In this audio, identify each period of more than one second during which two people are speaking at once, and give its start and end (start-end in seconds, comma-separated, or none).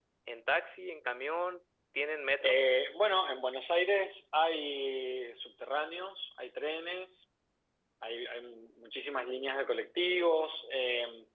none